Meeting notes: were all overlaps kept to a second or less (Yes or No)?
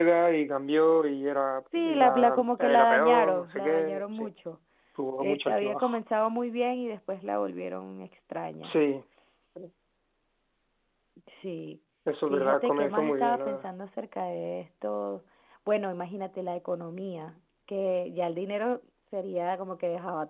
No